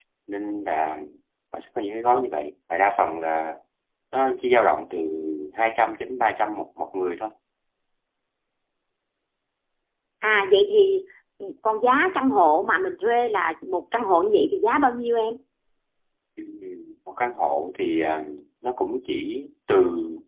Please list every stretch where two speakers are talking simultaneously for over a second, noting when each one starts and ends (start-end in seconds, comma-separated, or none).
none